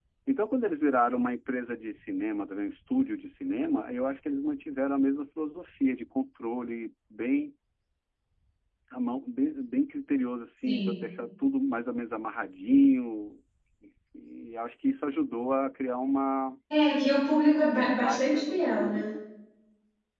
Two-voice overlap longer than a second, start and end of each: 17.6-19.0

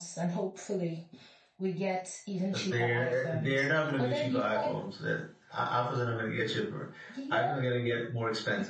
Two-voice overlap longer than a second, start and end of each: 2.5-4.7

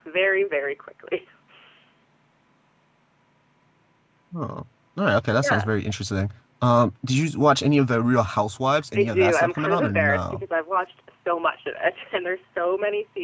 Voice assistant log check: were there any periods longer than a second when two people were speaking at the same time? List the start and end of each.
9.0-10.4

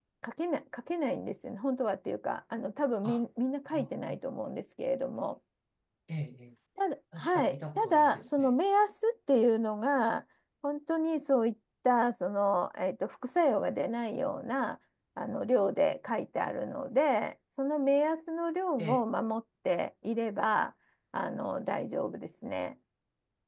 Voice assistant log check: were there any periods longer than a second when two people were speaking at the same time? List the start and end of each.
7.2-8.6

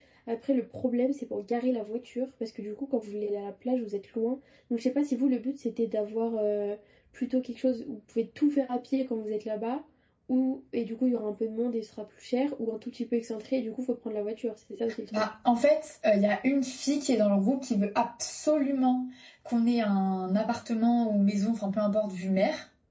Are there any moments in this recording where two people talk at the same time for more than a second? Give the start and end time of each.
none

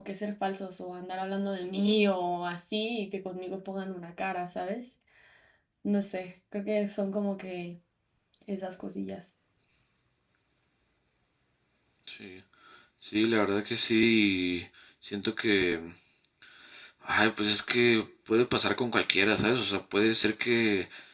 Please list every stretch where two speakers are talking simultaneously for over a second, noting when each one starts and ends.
none

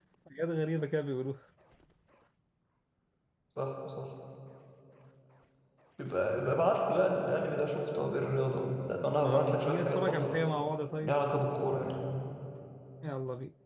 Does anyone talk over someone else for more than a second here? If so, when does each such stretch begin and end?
9.1-10.4

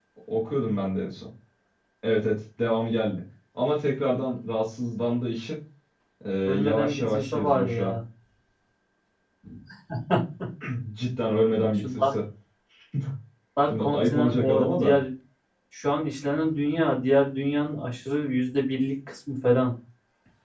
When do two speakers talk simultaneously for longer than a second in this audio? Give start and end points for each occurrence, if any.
6.4-8.0, 13.7-14.9

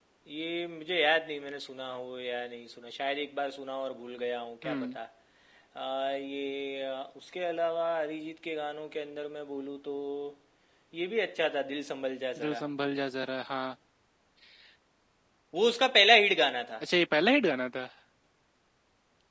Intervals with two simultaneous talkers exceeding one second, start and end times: none

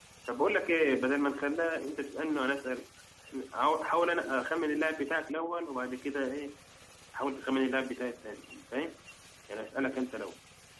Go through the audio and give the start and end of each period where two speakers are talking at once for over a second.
none

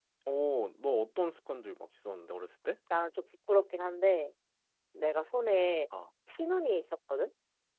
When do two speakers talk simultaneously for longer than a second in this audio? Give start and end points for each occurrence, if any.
none

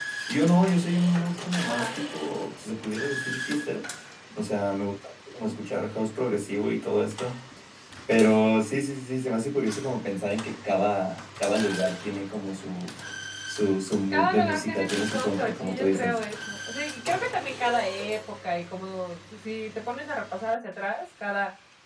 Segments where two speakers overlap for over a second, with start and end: 14.1-16.2

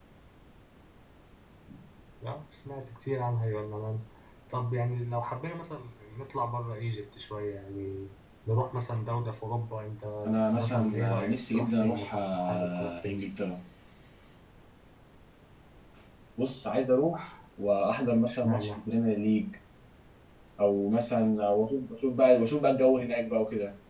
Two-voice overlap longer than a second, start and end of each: 10.3-13.2

